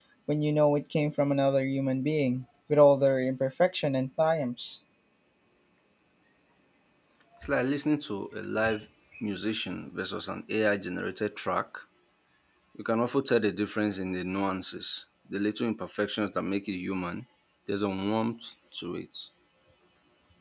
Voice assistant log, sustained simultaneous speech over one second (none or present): none